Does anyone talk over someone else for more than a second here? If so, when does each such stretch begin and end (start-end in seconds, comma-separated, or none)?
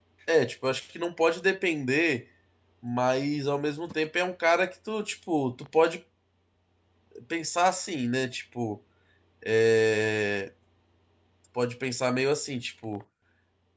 none